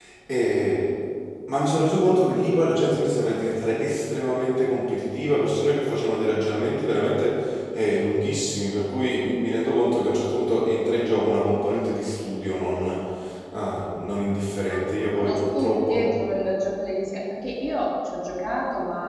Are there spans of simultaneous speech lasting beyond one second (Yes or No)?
Yes